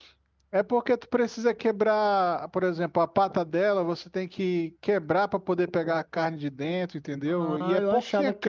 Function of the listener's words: taking over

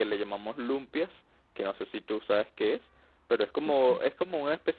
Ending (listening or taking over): listening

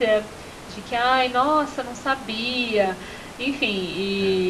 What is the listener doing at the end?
listening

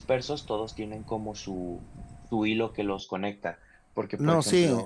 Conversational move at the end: taking over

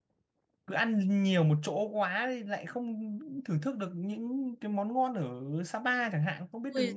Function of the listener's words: taking over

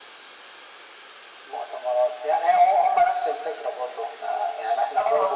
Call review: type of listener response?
listening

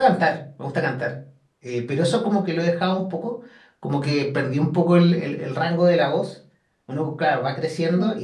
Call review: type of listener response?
listening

